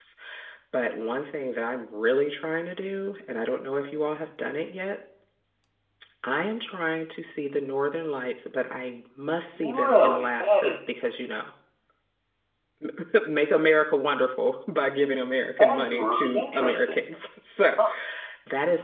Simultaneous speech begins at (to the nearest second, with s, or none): 10 s